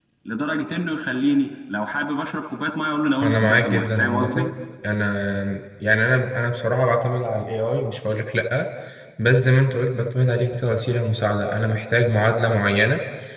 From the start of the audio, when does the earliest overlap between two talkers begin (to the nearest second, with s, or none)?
3 s